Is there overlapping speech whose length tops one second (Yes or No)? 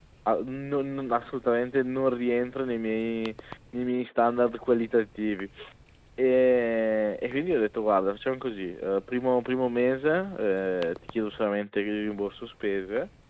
No